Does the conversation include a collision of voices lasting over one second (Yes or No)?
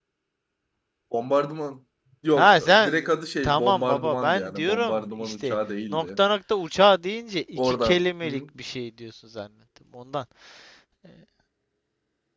Yes